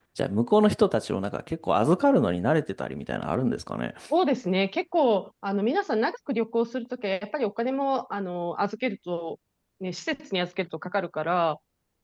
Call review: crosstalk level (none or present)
none